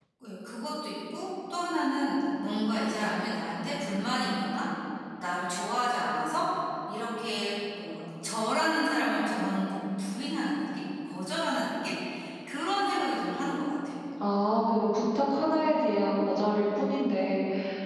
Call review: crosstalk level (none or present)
none